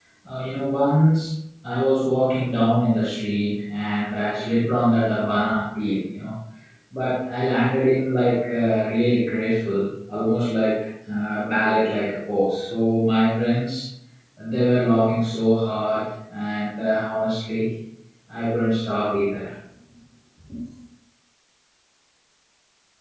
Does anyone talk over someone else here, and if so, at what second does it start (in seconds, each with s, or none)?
none